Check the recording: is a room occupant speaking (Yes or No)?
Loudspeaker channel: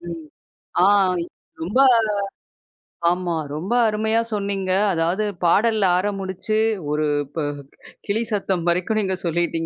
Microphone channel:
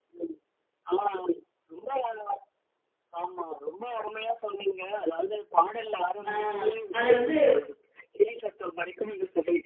Yes